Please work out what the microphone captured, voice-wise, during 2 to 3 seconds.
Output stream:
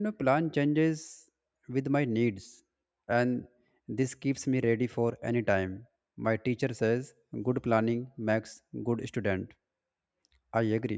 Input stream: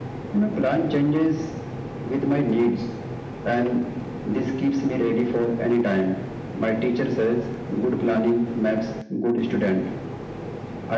echo only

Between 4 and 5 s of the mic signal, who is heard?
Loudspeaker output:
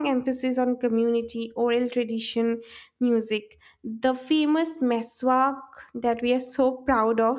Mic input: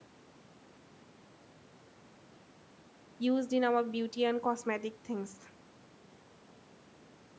user only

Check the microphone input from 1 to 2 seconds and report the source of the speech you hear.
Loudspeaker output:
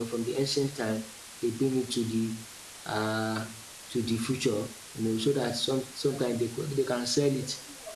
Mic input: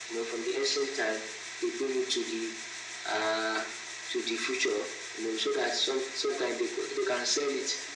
echo only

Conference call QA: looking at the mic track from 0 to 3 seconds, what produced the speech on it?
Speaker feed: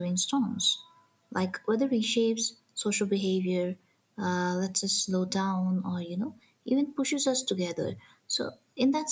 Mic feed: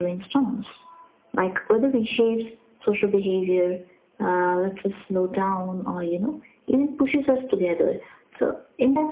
echo only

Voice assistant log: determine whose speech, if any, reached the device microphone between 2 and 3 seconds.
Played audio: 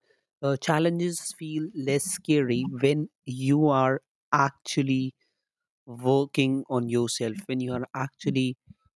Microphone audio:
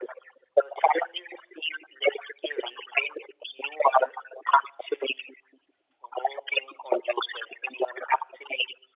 echo only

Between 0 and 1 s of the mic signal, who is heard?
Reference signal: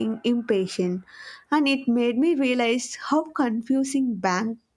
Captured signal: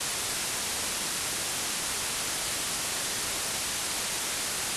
neither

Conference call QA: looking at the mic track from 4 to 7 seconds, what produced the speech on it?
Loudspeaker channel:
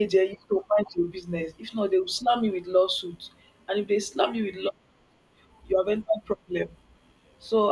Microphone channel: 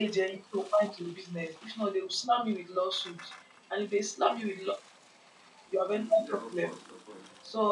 both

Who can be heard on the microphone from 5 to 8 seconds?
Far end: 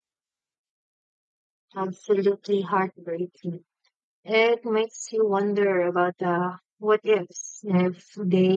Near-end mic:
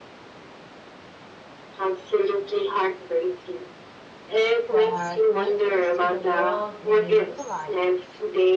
both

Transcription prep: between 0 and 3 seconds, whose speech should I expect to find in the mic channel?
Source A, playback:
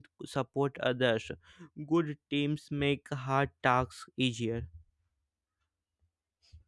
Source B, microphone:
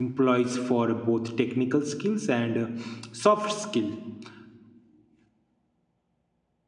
user only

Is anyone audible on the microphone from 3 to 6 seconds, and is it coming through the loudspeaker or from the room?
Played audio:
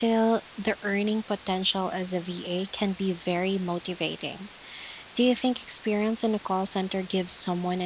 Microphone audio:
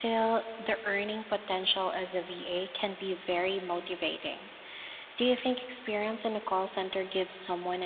echo only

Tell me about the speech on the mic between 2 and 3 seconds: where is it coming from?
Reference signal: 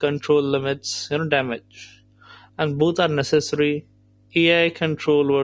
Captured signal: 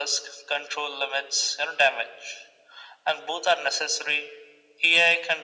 echo only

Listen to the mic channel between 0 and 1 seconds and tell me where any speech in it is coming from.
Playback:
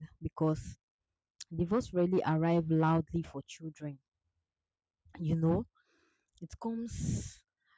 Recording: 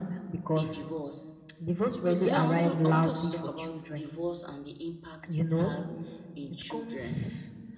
both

